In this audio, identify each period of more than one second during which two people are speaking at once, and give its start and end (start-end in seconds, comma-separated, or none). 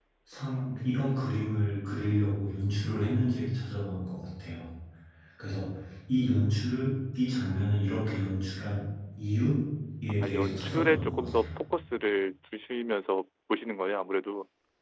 10.2-11.6